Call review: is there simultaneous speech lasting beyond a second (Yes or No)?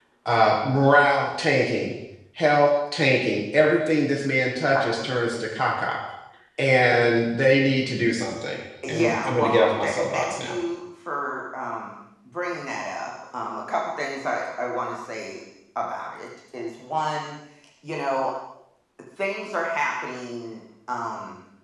Yes